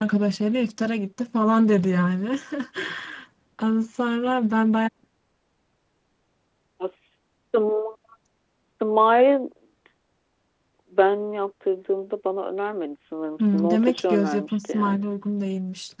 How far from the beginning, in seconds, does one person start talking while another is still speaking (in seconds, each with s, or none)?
13.4 s